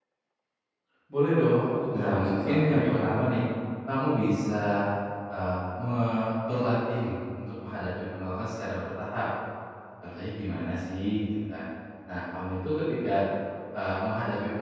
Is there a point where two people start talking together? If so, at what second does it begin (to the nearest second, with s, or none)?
2 s